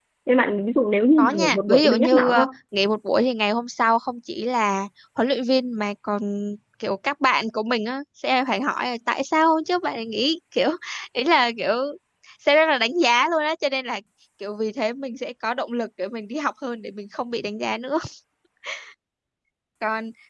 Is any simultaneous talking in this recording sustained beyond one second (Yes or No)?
Yes